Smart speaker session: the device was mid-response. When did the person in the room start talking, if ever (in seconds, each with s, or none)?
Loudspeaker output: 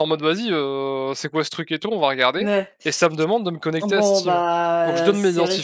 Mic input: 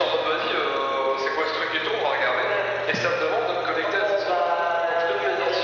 none